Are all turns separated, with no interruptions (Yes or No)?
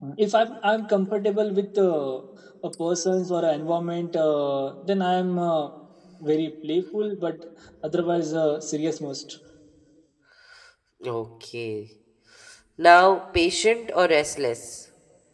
Yes